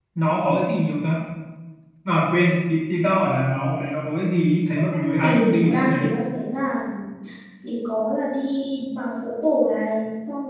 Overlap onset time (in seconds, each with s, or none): 4.8 s